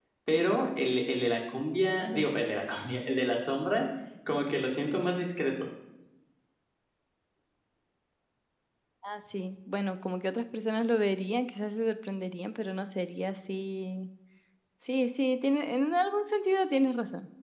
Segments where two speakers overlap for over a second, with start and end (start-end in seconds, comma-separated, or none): none